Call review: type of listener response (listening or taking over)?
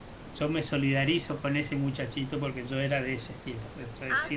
taking over